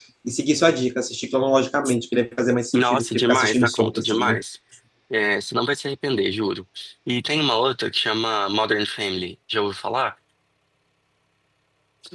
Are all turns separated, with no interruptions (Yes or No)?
No